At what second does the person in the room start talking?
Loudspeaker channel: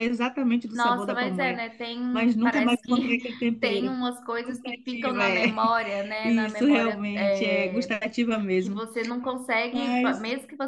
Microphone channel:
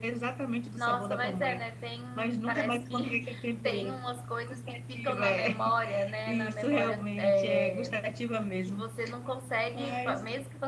none

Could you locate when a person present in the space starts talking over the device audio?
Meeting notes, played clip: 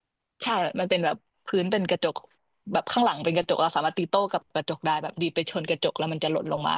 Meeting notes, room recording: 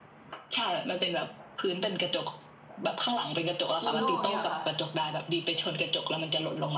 3.8 s

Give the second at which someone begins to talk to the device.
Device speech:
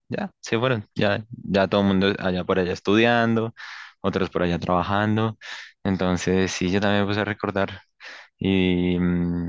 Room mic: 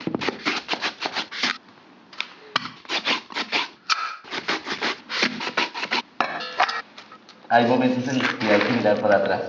7.5 s

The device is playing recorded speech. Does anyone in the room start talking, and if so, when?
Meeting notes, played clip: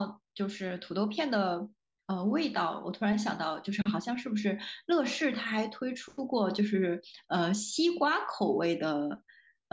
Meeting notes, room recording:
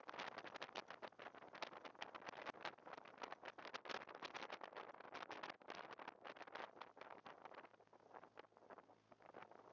none

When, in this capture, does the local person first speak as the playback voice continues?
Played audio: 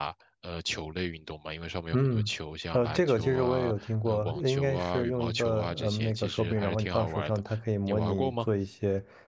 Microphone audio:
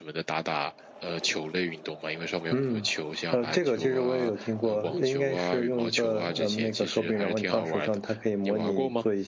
none

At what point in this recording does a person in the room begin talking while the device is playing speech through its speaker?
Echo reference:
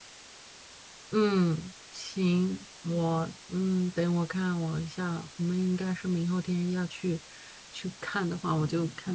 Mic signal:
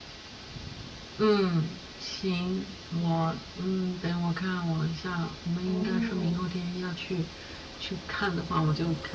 5.6 s

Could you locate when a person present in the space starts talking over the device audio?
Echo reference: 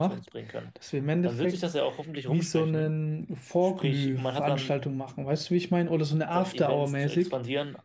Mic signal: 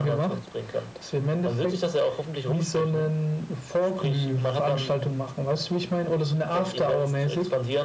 none

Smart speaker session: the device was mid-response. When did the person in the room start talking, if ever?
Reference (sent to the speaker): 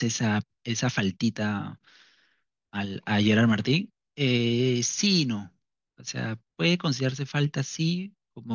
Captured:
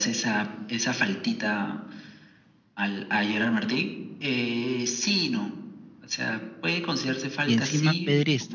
7.4 s

